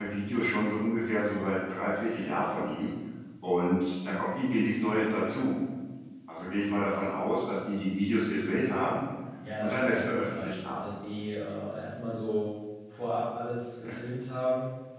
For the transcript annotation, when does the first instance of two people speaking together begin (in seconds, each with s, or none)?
9.6 s